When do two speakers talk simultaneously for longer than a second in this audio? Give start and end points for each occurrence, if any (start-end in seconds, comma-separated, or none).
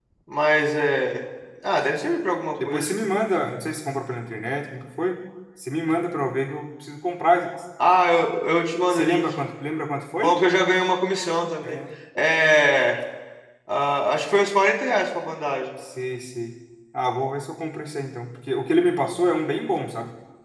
none